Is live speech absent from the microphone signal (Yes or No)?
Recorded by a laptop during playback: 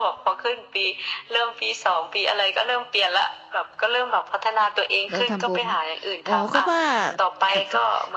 No